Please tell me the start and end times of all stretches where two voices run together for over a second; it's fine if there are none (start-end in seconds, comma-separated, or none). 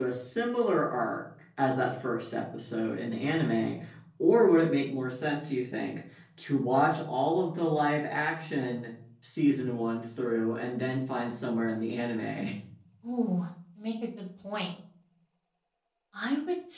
none